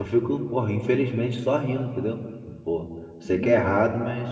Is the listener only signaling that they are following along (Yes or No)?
Yes